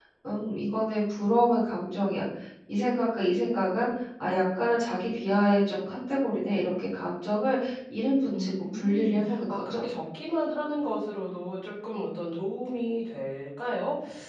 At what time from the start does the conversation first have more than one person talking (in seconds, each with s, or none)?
8.3 s